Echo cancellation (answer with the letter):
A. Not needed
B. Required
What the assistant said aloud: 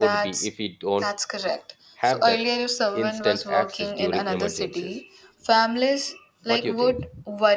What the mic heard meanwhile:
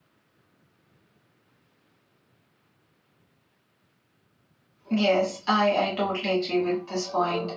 A